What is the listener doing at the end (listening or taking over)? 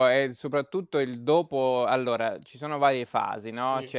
listening